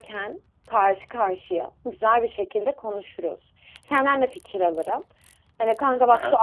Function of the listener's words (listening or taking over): listening